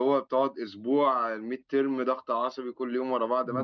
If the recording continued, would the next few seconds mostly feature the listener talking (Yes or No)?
Yes